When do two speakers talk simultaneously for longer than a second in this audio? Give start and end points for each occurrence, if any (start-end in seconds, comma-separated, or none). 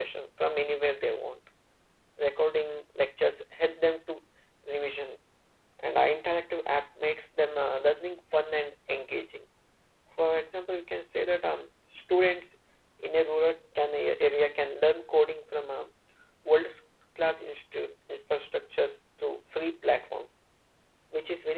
none